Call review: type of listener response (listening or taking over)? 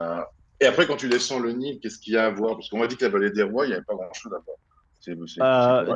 taking over